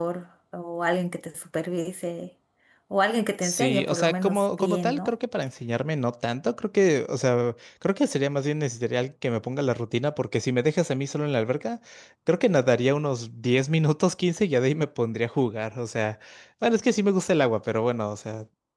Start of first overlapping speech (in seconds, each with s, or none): 3.4 s